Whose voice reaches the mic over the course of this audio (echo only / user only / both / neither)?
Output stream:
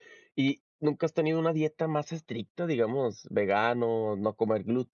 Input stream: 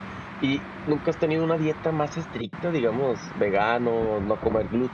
echo only